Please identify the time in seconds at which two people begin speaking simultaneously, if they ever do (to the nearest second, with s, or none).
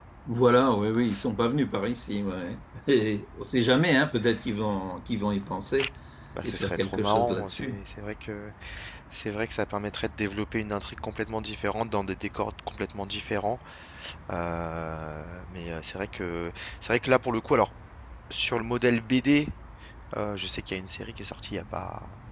6 s